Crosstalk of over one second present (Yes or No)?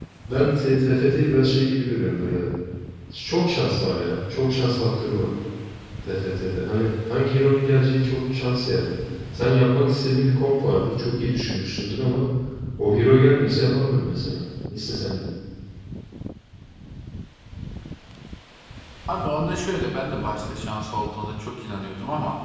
No